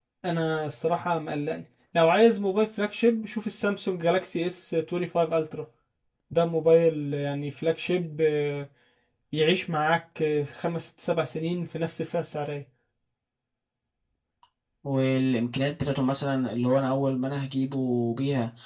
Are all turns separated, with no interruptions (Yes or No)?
Yes